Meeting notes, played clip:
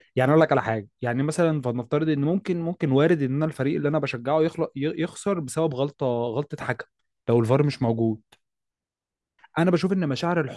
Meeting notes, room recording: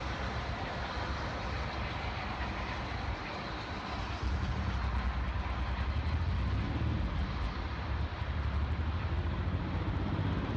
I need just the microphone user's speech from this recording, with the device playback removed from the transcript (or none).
none